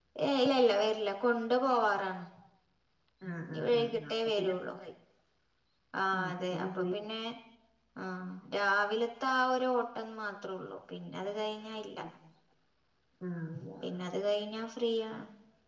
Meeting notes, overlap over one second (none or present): present